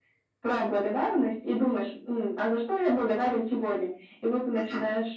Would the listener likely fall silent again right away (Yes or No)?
Yes